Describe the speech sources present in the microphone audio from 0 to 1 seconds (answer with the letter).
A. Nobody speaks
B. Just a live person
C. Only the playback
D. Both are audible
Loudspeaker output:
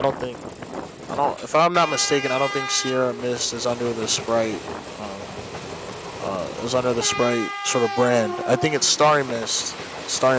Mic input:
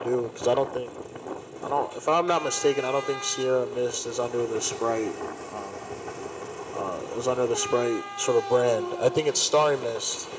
C